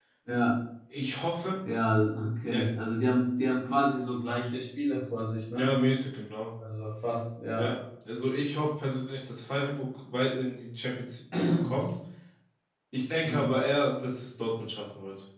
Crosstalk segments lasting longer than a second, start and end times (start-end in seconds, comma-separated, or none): none